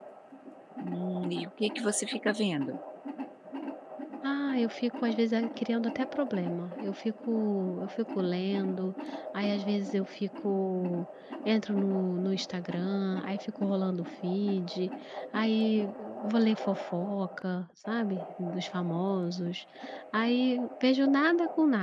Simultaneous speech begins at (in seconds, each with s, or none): none